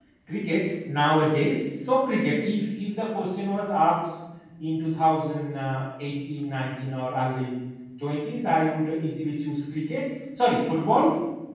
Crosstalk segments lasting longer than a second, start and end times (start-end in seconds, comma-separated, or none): none